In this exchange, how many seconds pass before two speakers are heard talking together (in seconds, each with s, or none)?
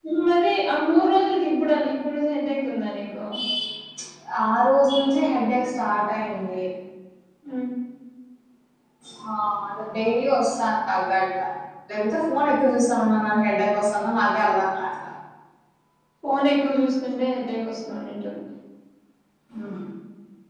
none